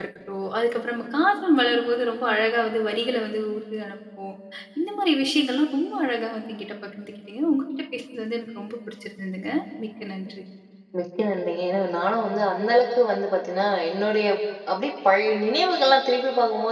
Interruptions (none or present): none